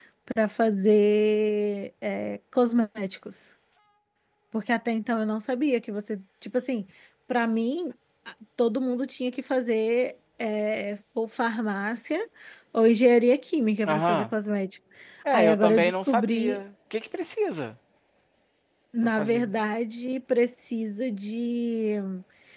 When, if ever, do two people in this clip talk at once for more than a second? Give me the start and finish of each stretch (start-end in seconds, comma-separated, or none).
15.3-16.6